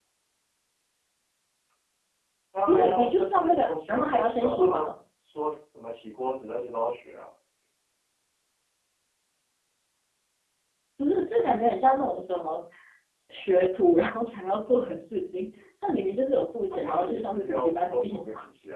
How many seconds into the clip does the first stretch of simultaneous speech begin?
2.7 s

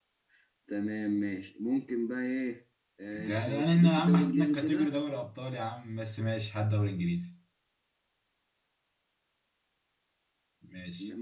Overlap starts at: 3.1 s

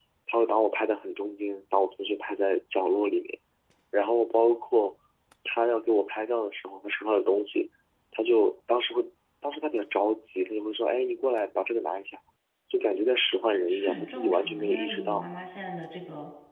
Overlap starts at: 13.7 s

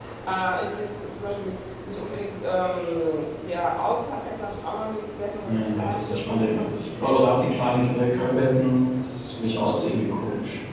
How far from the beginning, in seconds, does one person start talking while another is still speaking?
5.4 s

